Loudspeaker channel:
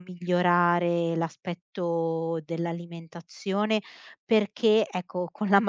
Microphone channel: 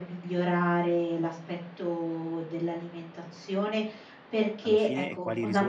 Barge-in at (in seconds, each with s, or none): 4.6 s